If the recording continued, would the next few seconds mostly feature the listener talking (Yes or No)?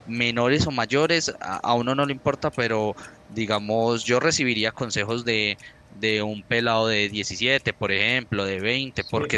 No